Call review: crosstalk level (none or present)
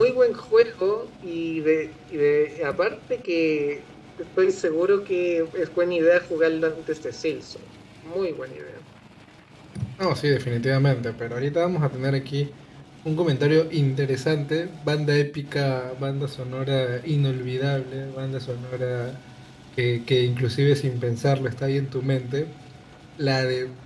none